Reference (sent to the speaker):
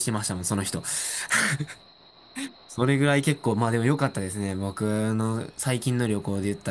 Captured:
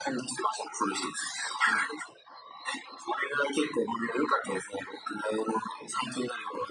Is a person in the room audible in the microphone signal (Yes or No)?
No